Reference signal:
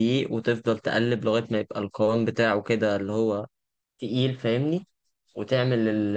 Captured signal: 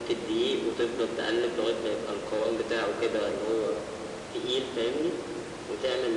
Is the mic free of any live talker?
Yes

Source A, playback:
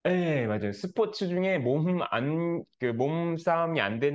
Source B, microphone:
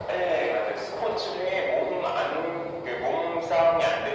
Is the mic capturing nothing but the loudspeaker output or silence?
Yes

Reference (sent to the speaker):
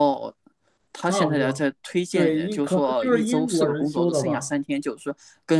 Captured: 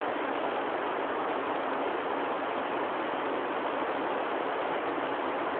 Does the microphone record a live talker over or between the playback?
No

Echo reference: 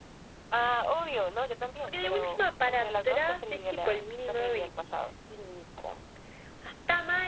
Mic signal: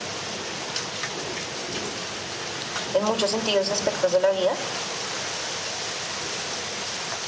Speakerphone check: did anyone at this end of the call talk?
Yes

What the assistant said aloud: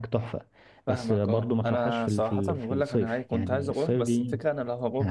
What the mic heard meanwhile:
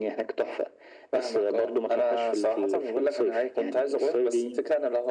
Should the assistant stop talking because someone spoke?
No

